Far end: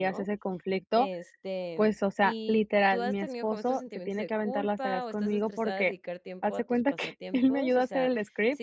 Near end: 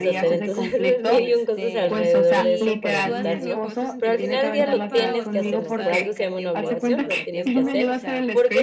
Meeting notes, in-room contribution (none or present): present